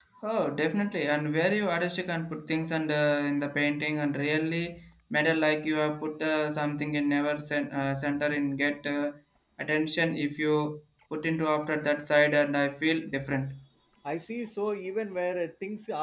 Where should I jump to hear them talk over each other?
none

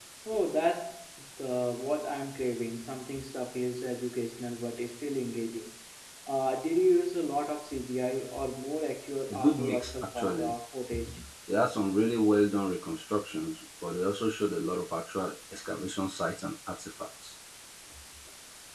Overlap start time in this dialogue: 9.3 s

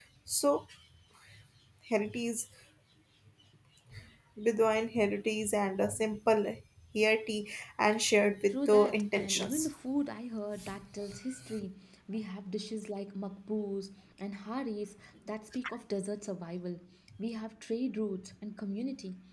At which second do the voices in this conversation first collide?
8.5 s

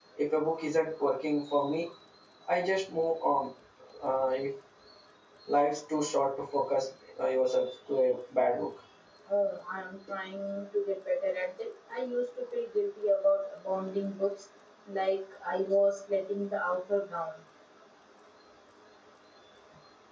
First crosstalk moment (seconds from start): none

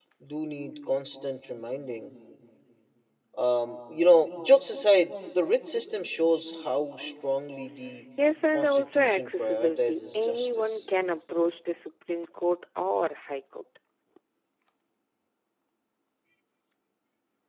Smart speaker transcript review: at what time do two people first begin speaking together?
8.5 s

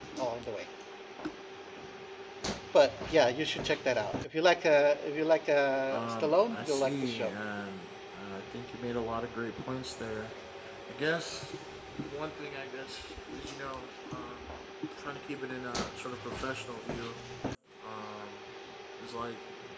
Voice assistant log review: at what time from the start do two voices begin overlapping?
5.9 s

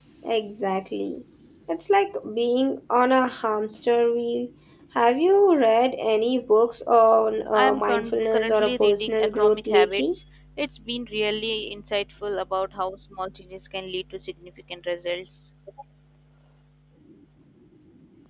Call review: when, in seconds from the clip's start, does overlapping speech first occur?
7.5 s

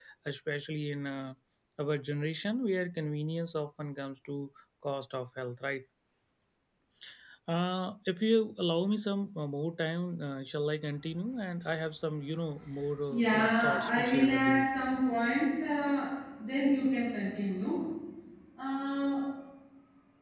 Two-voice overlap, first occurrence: 13.1 s

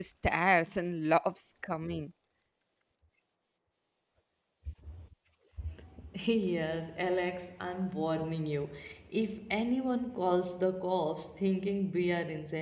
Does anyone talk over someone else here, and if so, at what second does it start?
none

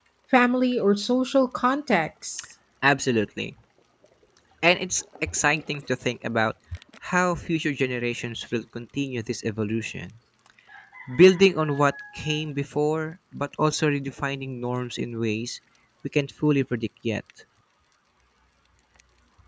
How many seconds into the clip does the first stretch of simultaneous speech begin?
none

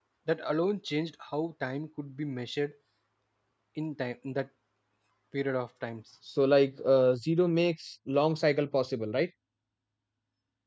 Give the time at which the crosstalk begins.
none

